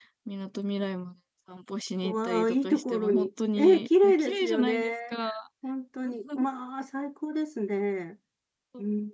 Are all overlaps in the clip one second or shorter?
No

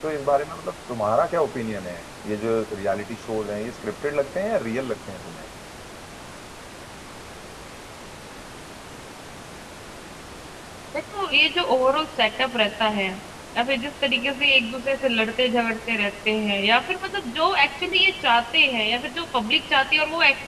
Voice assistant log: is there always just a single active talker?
Yes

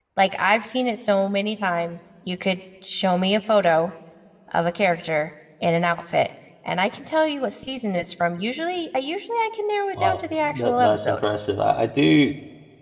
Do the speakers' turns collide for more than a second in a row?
Yes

